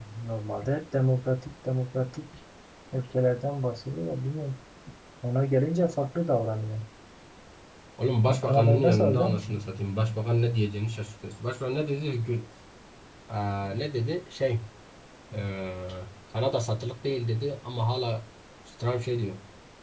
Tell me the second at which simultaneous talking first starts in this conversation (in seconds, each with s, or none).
8.2 s